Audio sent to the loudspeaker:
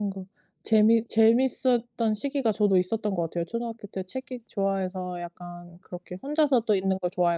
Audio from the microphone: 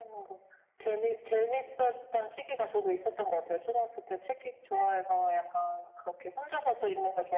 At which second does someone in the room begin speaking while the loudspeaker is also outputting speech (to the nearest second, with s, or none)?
none